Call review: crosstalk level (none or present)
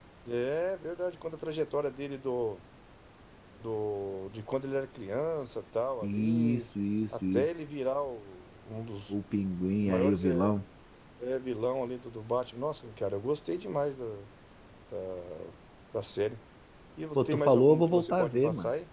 present